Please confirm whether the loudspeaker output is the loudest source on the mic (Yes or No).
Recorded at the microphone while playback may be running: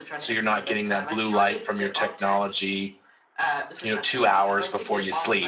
No